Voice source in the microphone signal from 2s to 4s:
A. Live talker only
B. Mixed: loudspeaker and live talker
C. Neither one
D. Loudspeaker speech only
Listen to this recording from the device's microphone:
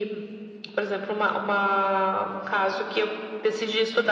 D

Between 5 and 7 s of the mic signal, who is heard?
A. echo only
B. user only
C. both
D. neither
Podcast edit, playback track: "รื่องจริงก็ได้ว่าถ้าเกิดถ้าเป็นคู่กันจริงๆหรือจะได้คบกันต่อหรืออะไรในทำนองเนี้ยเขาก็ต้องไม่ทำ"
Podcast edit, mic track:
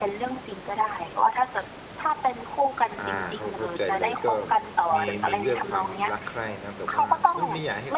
C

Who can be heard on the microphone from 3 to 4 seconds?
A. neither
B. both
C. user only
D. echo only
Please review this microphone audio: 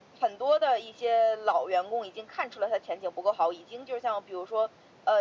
D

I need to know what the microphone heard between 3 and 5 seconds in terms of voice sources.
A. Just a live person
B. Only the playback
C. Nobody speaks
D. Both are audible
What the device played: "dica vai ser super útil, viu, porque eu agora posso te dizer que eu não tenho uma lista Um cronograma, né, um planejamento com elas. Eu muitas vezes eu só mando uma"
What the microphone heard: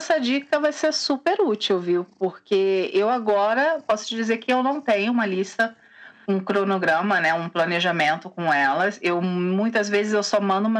B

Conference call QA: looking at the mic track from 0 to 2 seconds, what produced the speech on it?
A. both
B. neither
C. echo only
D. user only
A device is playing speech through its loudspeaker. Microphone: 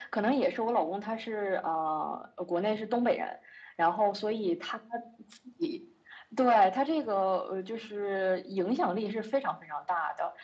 C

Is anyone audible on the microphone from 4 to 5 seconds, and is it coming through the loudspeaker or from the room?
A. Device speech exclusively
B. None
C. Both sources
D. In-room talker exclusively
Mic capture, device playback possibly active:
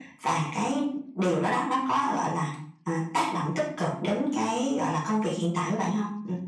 A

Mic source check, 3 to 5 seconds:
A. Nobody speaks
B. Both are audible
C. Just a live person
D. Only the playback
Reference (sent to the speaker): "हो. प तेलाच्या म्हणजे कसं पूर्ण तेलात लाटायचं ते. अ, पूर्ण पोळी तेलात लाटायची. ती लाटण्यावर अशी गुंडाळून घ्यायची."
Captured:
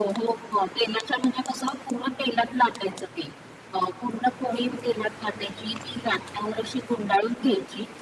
D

